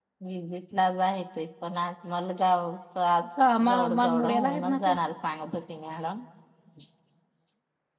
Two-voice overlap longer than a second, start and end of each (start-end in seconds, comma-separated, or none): 3.6-5.0